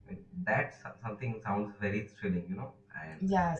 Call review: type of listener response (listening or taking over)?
taking over